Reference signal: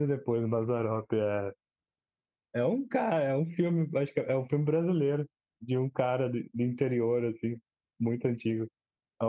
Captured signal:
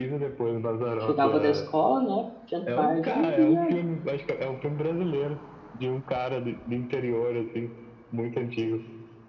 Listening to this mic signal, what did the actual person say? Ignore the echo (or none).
chegava da escola, né, tinha tarde e ia